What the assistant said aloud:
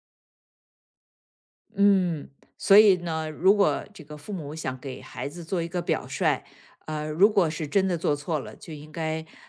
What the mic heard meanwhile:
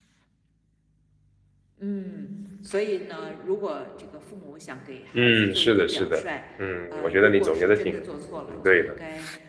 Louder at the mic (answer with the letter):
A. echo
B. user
B